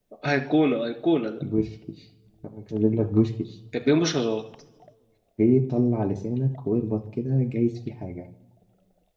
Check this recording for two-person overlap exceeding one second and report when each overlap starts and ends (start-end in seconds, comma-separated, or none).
none